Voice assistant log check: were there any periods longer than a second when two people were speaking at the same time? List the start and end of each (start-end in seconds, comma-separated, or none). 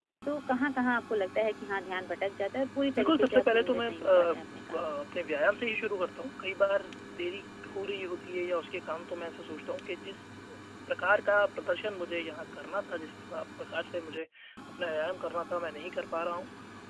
3.0-5.0